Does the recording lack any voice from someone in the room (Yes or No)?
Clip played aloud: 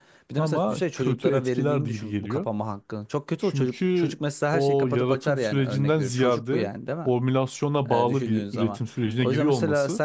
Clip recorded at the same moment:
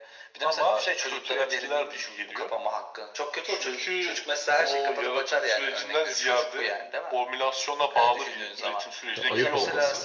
No